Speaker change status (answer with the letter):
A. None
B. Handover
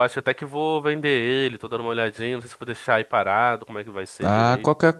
B